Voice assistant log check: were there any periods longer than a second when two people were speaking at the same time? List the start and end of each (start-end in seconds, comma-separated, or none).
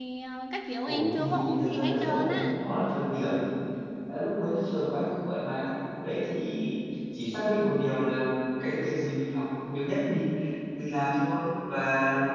0.9-2.6